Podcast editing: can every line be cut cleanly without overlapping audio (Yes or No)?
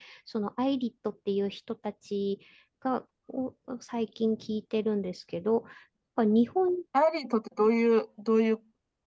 Yes